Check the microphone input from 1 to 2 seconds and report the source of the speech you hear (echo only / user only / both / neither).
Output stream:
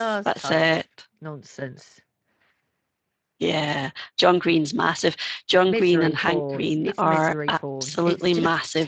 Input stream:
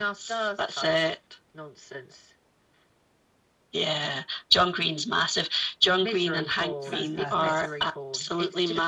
echo only